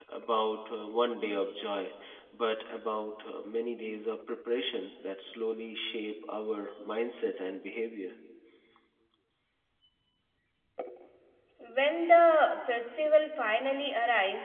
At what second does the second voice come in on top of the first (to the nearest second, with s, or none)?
none